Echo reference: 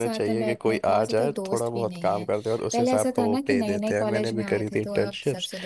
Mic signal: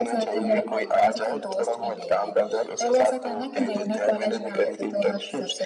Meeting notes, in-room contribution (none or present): none